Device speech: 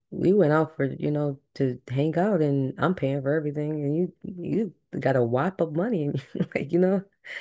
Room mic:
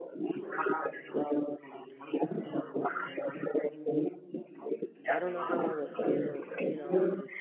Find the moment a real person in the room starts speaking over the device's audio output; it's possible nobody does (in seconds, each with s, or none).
5.1 s